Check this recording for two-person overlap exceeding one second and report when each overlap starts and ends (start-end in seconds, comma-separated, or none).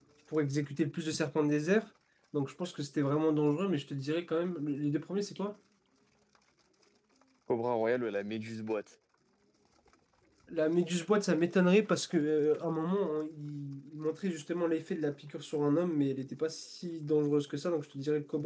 none